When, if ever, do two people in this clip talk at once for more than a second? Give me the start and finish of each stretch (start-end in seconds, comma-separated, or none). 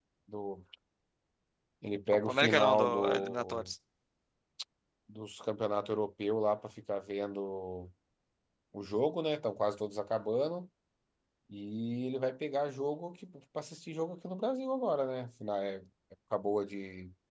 2.3-3.7